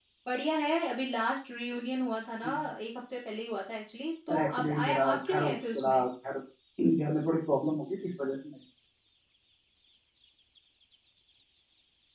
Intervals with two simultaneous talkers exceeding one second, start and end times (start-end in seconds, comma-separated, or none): 4.3-6.0